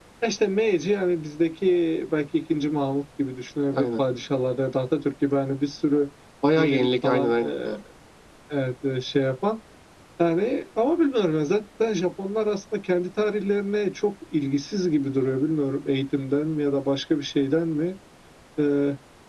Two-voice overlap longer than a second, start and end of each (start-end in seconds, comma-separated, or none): 6.5-7.8